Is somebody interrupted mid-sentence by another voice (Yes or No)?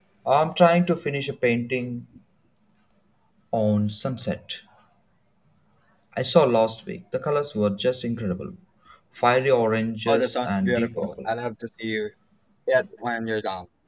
Yes